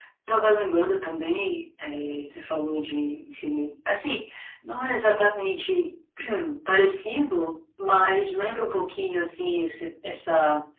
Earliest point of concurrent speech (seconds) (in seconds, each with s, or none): none